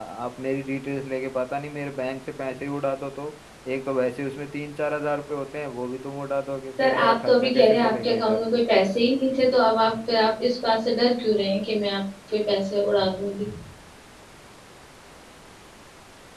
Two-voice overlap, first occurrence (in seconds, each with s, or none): 6.8 s